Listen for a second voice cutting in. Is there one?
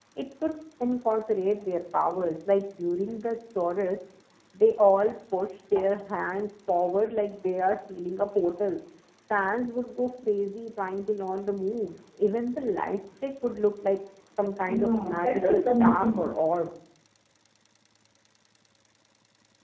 Yes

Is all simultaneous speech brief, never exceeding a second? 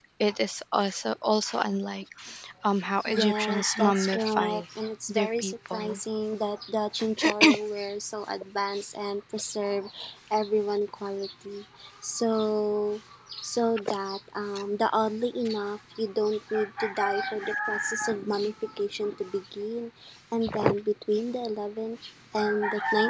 No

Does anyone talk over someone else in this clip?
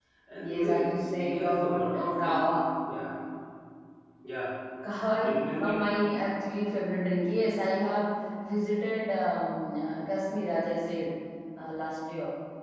Yes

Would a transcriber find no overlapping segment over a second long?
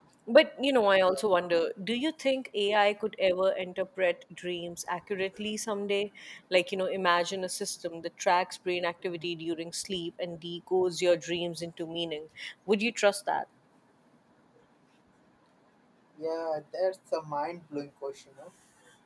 Yes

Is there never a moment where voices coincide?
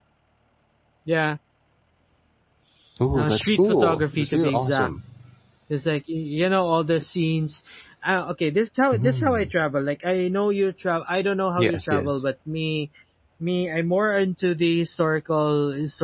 No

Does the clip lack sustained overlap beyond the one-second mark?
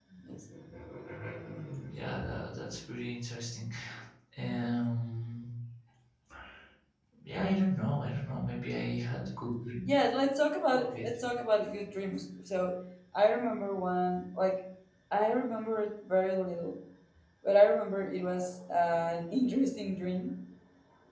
Yes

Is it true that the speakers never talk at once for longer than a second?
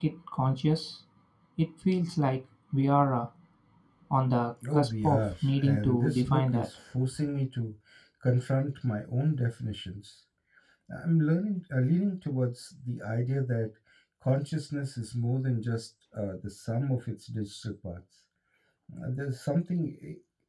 No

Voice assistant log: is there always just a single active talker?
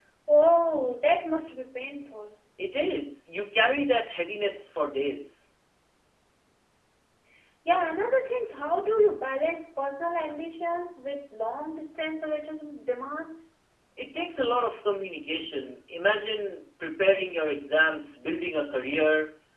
Yes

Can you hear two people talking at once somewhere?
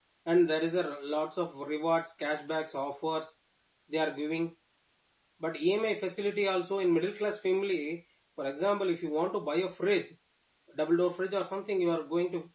No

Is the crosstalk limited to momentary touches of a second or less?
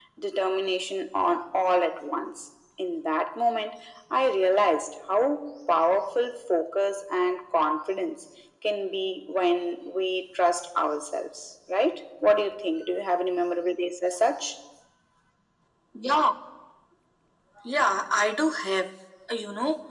Yes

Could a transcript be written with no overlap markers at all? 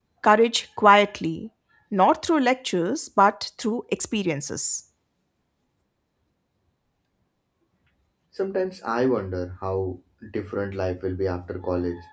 Yes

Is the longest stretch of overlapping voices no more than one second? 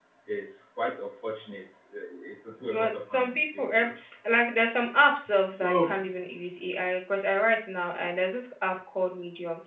No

